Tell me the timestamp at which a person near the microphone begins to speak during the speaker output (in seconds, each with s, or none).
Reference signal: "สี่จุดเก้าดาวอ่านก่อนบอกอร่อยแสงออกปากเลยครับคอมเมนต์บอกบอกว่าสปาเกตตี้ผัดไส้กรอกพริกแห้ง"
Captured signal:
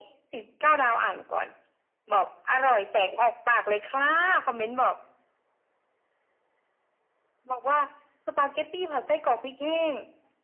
none